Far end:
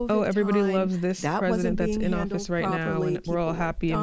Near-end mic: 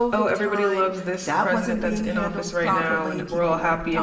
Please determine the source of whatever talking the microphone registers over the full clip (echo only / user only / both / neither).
echo only